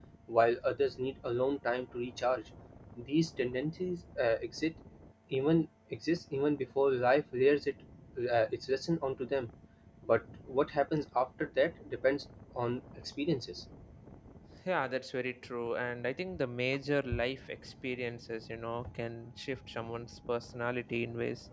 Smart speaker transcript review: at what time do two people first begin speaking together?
none

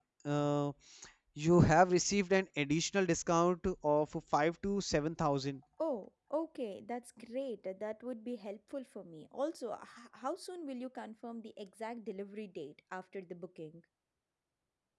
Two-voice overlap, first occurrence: none

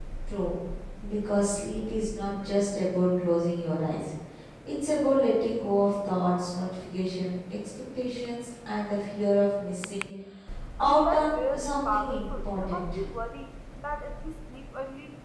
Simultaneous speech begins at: 10.8 s

